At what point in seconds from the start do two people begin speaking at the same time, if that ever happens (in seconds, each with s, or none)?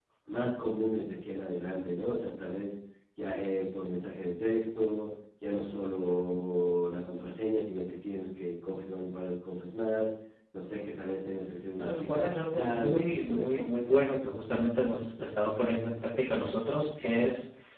11.7 s